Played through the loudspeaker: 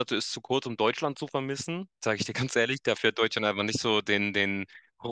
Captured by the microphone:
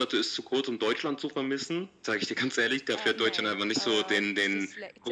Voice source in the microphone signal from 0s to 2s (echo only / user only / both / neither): echo only